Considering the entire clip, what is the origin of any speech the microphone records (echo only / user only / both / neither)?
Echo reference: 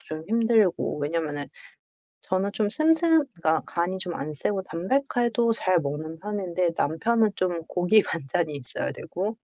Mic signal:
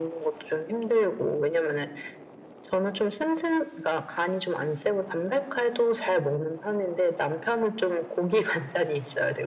echo only